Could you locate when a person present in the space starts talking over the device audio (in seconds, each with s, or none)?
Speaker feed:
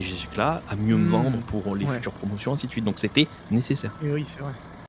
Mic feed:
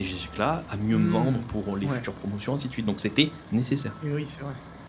none